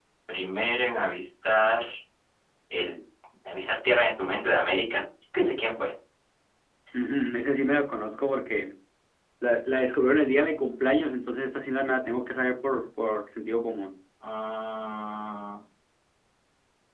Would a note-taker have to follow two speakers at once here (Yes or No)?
No